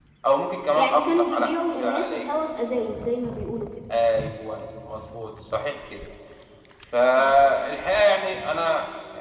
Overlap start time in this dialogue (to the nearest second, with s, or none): 1 s